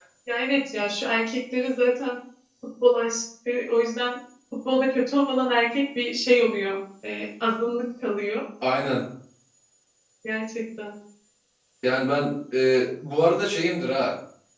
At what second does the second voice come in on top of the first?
none

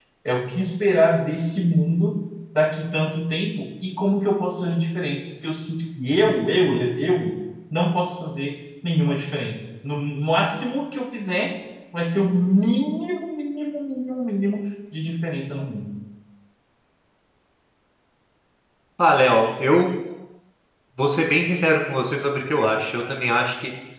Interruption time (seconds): none

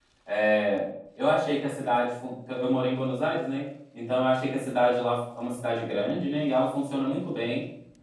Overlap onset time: none

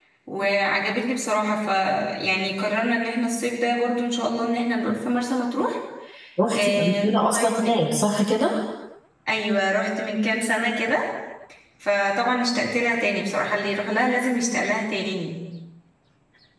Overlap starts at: 6.5 s

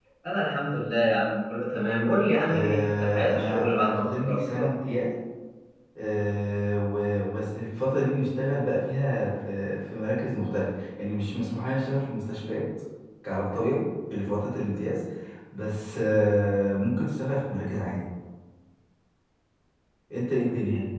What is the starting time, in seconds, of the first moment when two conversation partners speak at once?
2.4 s

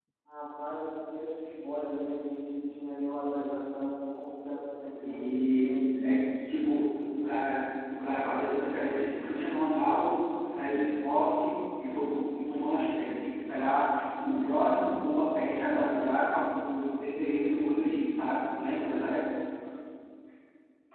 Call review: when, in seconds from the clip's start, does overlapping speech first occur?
4.9 s

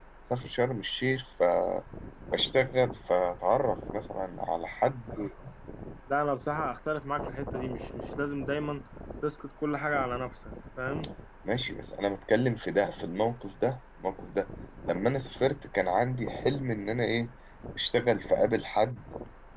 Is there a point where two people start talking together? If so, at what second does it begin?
none

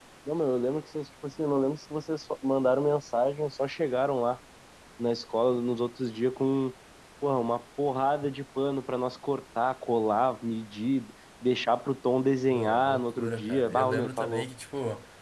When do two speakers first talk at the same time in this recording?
12.5 s

